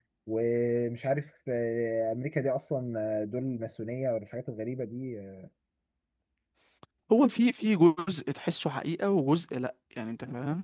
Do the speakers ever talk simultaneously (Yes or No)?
No